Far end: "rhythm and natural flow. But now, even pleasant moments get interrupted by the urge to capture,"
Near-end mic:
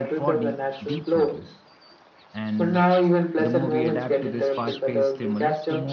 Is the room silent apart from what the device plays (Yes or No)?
No